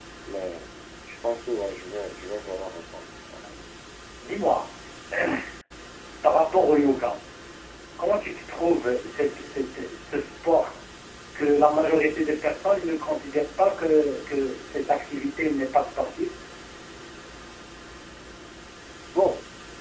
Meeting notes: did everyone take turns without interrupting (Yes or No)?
Yes